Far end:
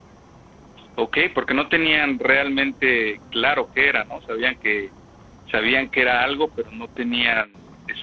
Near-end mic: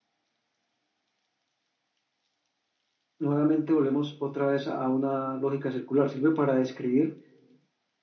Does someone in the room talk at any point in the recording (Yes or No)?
Yes